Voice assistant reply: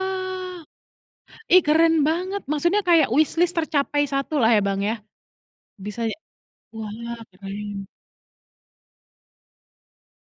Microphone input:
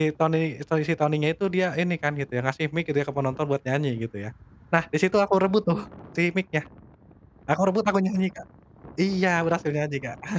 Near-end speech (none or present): present